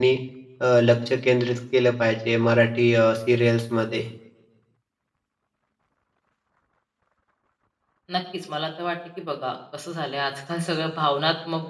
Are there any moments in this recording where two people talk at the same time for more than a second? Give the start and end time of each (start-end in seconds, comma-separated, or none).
none